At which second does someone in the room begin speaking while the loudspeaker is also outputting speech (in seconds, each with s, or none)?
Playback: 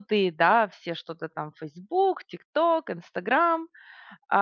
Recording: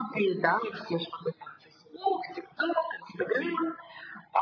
none